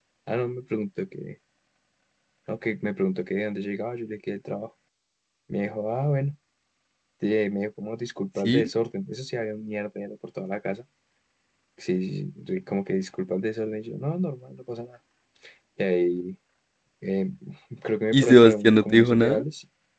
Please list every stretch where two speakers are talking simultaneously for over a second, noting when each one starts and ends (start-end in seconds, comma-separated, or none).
18.1-19.4